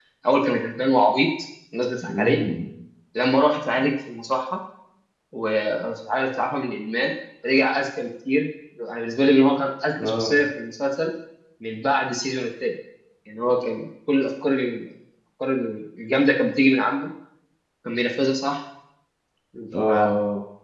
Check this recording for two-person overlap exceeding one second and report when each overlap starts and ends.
none

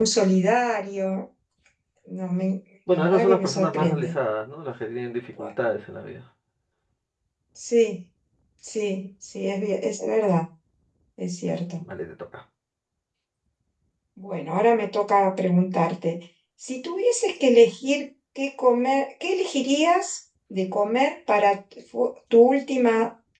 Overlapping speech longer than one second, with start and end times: 2.9-4.1

